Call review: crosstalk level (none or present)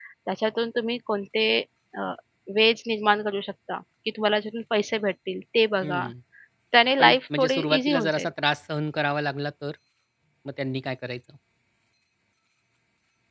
present